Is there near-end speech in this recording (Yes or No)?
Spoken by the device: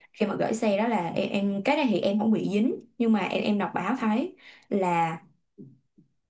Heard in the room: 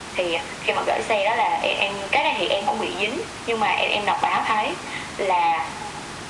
No